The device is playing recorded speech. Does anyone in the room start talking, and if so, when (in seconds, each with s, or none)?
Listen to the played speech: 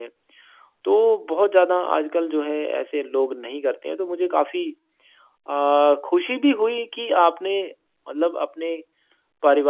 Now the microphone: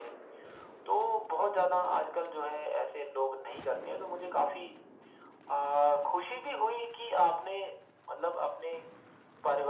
none